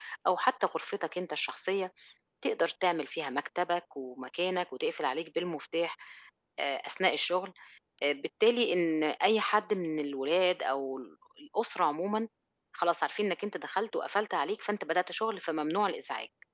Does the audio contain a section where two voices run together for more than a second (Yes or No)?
No